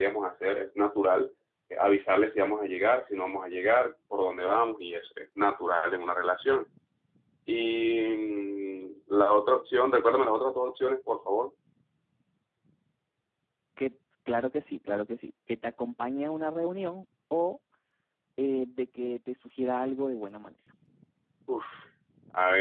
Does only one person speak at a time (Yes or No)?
Yes